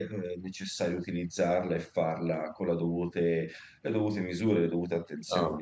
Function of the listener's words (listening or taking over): taking over